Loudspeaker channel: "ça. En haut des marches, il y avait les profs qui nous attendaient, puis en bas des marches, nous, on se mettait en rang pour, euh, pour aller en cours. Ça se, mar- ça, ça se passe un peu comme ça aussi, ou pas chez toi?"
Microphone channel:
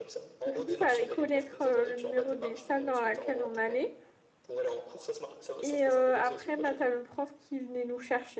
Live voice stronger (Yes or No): Yes